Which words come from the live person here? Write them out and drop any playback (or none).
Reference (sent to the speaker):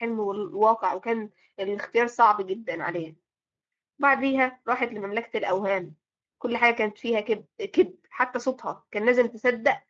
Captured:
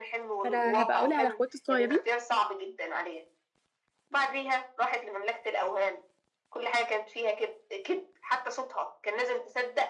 فأنا هبقى أقولها لأخواتي الصغيرين